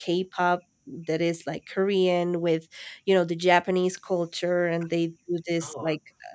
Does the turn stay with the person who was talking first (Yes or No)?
Yes